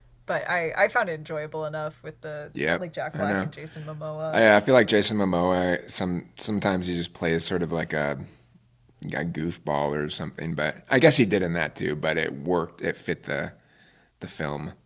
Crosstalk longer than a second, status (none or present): none